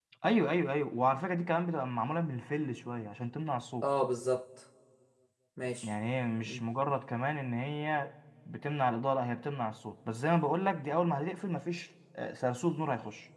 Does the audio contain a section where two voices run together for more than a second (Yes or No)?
No